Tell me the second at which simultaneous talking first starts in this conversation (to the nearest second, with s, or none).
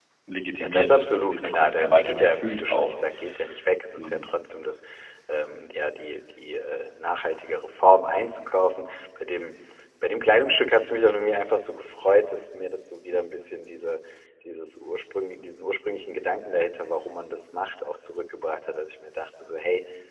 1 s